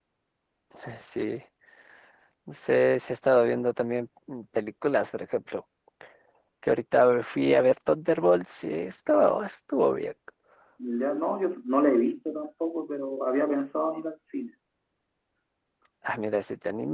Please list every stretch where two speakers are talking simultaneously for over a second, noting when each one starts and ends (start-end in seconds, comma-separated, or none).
none